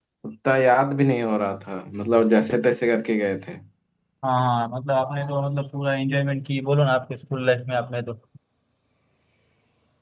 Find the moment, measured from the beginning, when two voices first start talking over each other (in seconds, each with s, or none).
none